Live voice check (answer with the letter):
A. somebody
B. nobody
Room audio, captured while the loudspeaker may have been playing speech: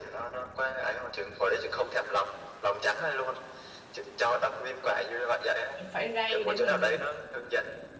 A